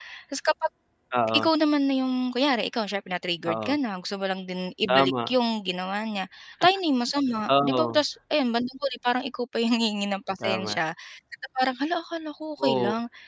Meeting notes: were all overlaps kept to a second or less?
Yes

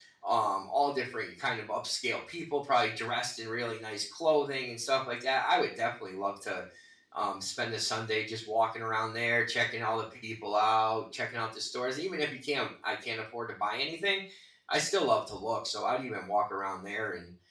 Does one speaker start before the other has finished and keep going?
No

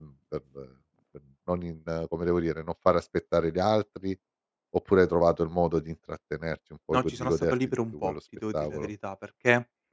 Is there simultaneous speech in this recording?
Yes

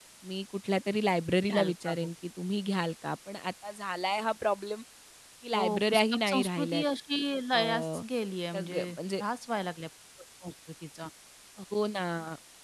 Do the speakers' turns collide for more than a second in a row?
Yes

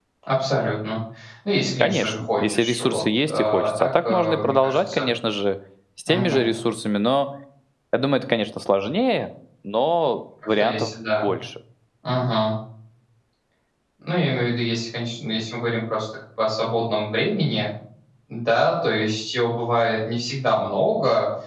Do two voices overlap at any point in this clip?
Yes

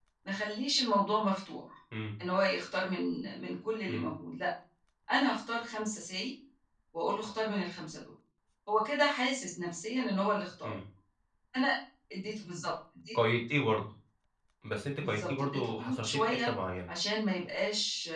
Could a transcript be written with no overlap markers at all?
No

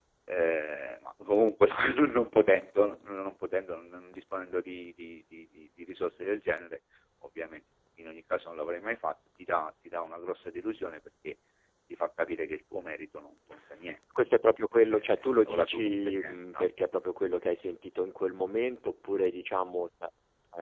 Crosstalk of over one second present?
Yes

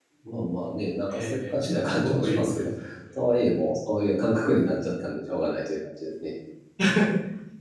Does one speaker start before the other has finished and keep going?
Yes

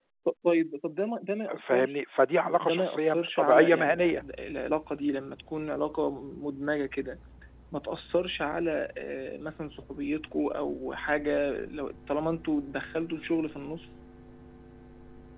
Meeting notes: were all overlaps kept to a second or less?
No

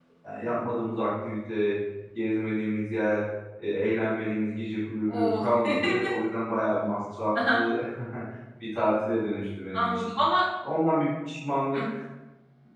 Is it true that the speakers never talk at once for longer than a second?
Yes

